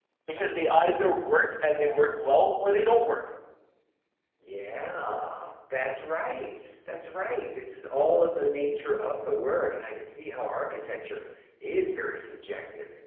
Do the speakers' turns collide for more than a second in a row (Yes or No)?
No